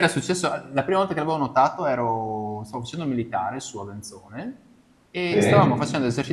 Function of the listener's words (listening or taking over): listening